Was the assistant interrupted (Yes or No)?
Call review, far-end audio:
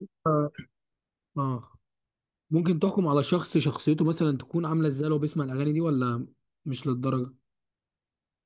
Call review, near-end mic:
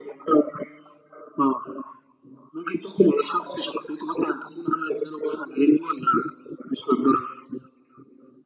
No